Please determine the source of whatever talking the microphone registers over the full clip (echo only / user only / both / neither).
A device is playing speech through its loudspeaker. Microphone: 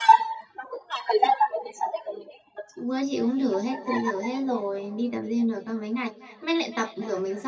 both